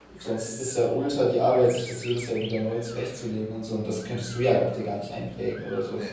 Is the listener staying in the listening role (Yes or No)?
Yes